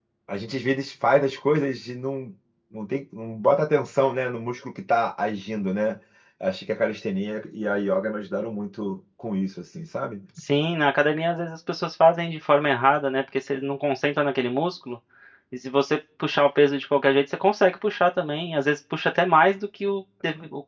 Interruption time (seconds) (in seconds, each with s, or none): none